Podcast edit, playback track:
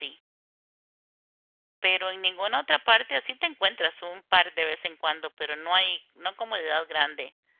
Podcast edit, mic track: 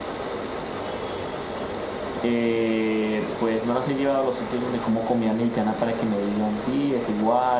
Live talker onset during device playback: 2.2 s

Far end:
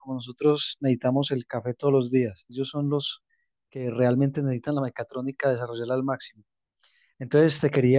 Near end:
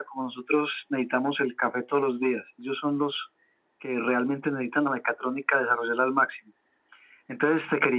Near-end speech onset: none

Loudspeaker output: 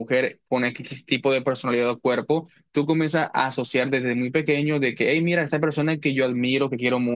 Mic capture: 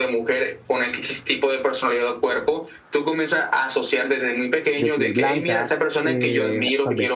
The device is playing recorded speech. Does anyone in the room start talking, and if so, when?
4.8 s

